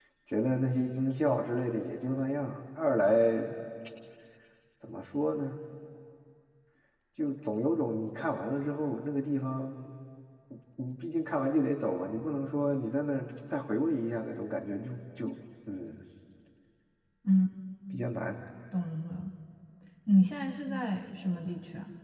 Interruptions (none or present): none